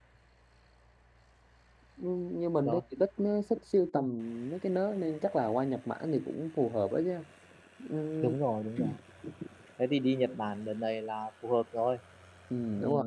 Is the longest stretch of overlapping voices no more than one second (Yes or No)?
Yes